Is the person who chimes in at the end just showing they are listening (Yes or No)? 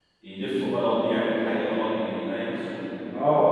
No